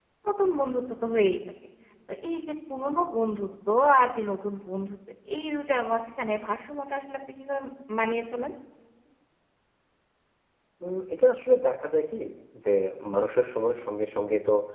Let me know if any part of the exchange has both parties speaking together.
No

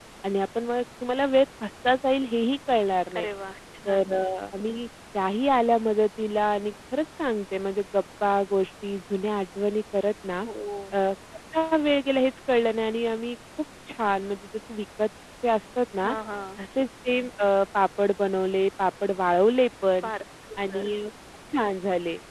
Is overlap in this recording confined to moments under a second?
Yes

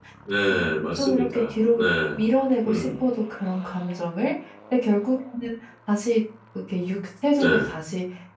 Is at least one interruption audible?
Yes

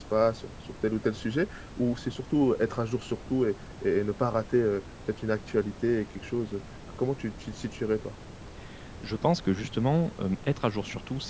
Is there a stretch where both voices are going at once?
No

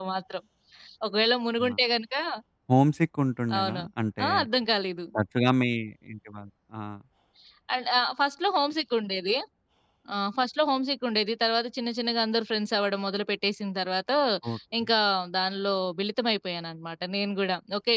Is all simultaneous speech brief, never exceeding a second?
Yes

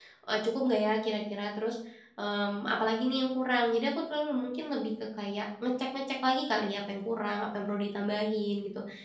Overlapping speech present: No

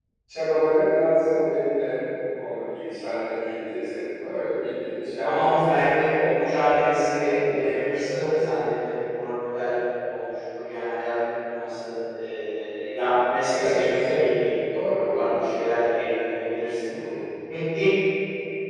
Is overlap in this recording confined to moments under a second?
No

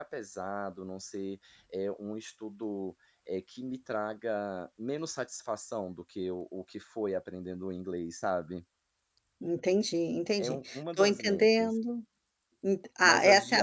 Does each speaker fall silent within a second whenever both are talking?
No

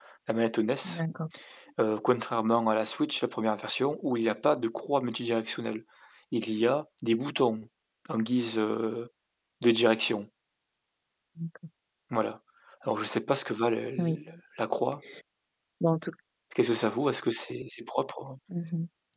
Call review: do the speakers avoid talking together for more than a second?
Yes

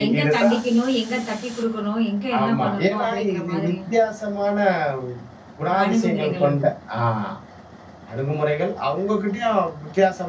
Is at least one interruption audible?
Yes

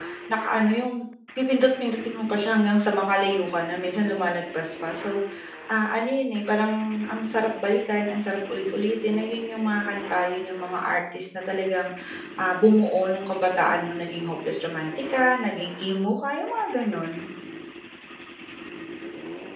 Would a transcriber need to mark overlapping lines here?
No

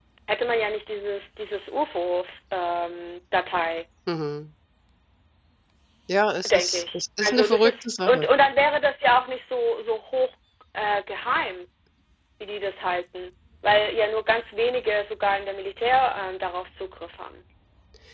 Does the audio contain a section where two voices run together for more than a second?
Yes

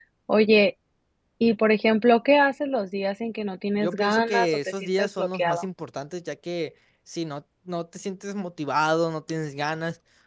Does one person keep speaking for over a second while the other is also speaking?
Yes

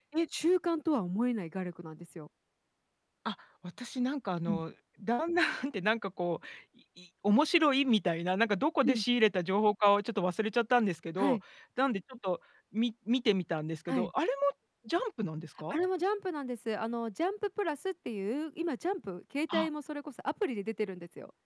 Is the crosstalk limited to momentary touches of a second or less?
Yes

